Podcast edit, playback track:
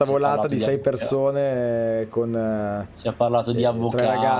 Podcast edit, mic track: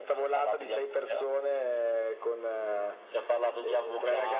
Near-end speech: none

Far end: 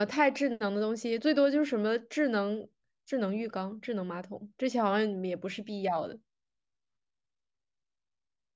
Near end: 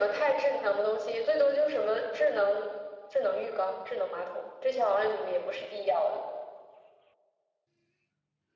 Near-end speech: none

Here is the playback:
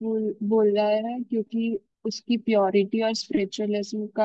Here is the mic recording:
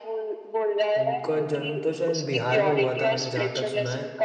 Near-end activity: present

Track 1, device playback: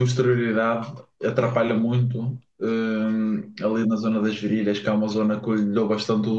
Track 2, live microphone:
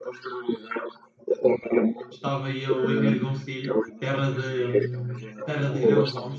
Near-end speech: present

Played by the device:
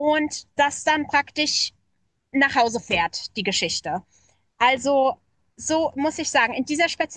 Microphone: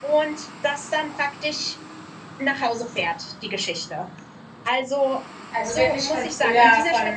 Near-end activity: present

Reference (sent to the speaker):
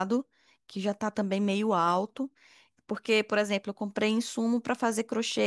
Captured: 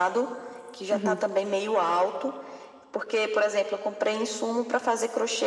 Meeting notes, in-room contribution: present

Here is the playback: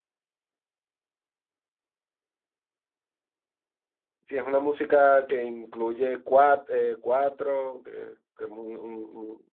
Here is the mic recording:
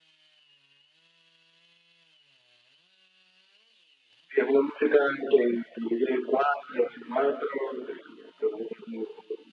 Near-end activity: none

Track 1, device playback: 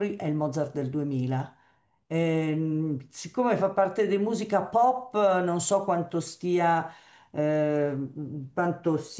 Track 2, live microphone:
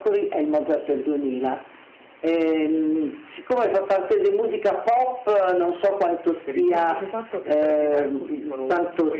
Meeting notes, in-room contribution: present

